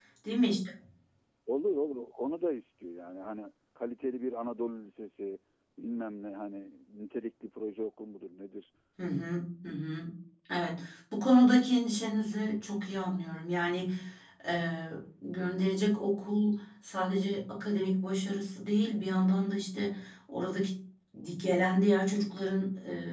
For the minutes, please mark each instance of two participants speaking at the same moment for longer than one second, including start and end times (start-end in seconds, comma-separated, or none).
none